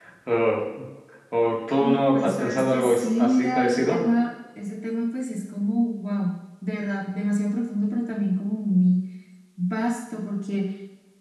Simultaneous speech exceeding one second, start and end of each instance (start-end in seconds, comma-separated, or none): 1.8-4.0